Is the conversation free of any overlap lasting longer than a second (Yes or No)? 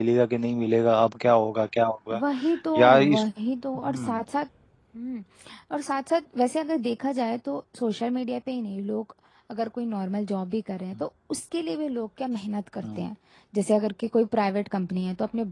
Yes